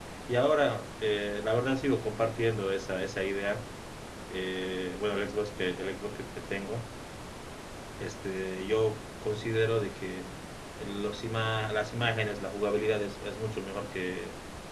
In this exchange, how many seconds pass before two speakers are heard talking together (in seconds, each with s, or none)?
none